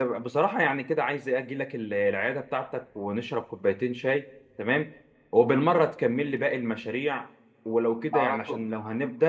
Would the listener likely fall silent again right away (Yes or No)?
Yes